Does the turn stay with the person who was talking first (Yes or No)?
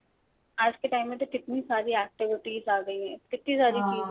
No